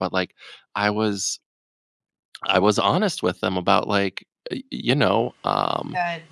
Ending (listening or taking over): listening